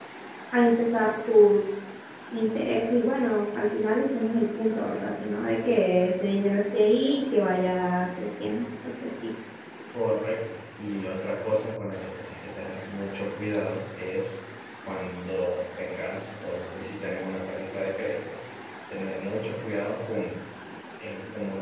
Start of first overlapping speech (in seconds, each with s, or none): none